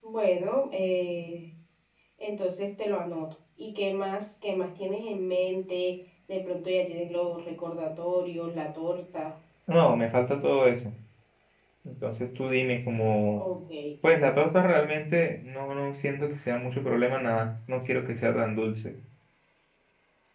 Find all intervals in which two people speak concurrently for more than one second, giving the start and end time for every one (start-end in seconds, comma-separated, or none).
none